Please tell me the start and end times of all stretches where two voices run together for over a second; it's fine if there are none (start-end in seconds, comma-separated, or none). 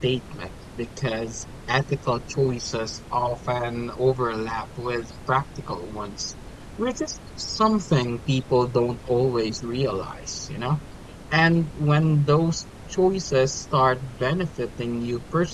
none